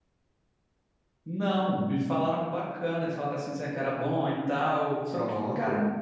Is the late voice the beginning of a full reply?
No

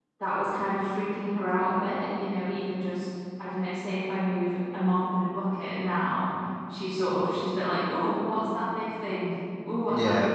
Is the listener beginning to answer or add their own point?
No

